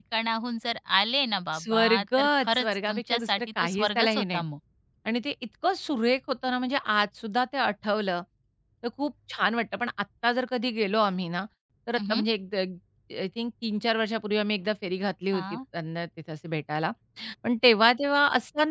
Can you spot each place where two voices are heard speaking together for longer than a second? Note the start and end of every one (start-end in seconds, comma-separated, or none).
1.5-4.4